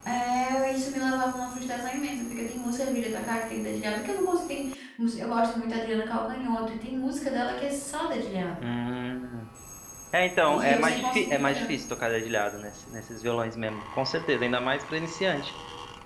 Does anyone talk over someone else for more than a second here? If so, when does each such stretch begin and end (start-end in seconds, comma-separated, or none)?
10.5-11.7